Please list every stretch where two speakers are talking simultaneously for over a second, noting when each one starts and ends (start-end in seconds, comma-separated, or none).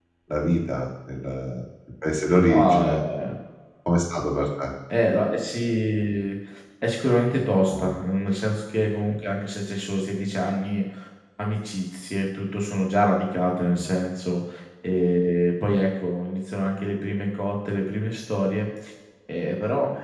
none